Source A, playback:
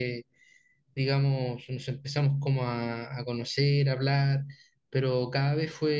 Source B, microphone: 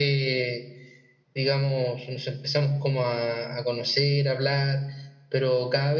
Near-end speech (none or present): none